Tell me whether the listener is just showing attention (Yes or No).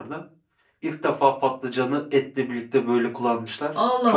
No